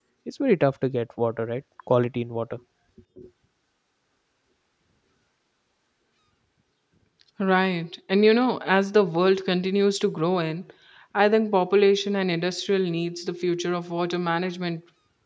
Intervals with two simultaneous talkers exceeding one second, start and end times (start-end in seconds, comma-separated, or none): none